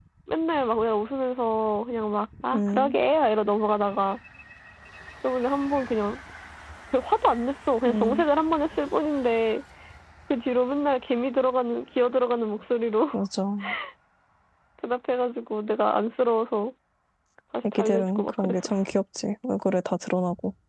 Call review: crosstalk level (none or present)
present